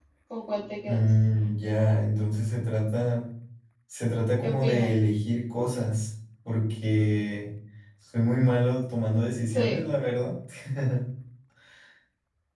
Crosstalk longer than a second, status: none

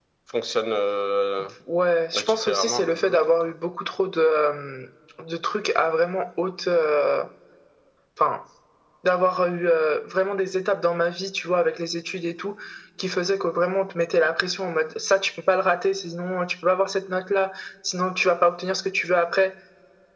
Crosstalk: present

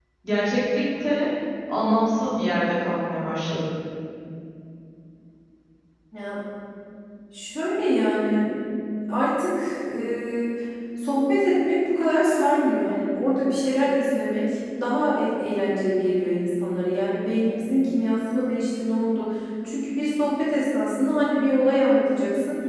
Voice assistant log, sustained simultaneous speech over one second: none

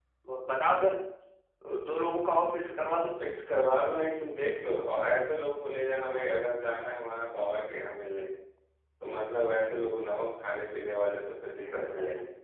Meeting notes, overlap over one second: none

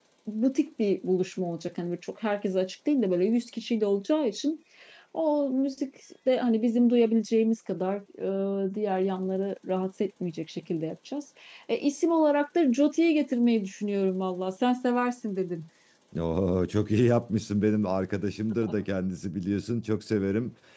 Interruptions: none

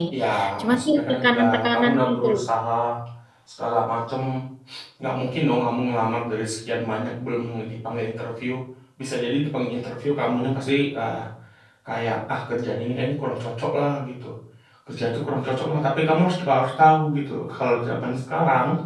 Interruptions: present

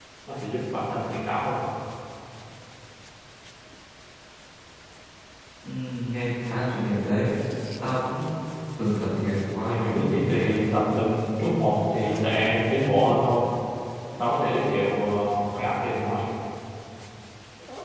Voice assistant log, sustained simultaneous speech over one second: present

